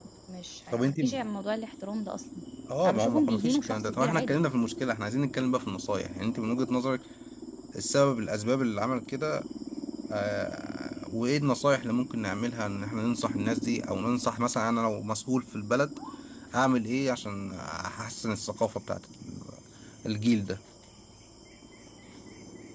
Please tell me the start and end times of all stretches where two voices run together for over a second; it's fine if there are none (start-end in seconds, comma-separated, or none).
2.8-4.4